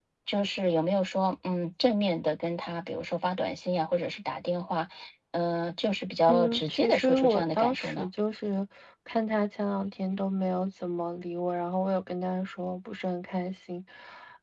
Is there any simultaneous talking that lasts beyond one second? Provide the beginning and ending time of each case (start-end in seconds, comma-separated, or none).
6.3-8.1